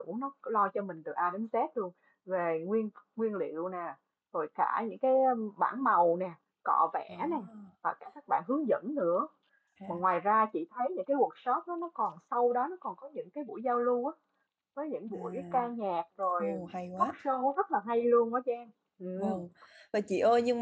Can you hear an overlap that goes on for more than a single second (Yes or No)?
No